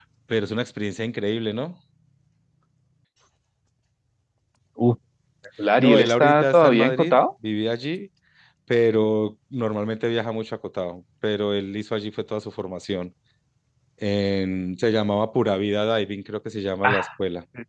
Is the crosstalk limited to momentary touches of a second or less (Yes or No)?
No